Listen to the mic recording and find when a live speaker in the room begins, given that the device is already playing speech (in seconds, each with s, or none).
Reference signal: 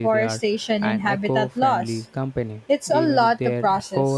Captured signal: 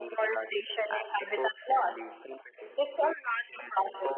none